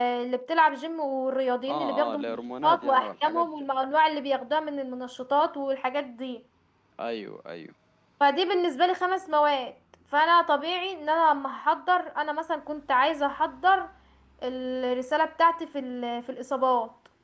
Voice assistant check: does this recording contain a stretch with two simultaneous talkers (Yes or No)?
Yes